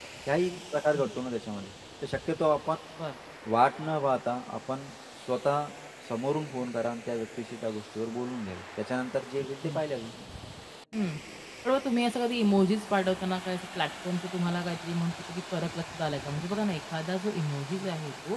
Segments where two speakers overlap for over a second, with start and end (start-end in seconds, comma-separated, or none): none